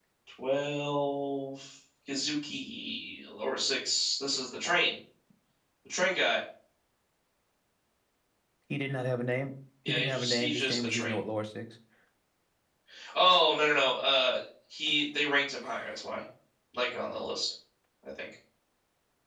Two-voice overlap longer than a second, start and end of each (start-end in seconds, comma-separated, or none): 9.9-11.2